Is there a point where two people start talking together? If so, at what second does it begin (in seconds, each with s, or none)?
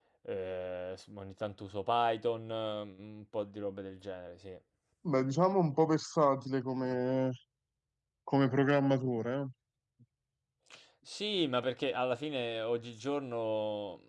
none